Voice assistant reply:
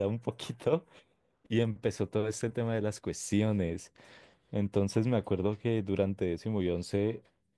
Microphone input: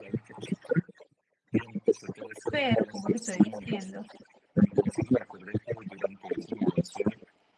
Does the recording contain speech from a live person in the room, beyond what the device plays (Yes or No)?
Yes